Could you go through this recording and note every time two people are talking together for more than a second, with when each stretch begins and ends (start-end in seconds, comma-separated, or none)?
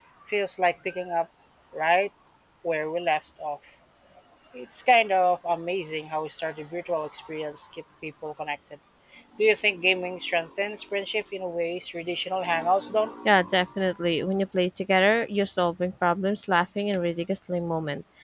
none